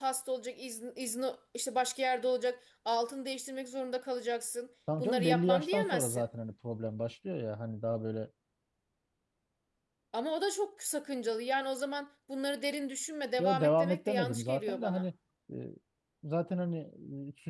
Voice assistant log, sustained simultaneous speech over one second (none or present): present